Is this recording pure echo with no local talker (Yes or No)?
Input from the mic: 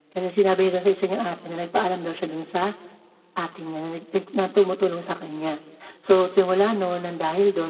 Yes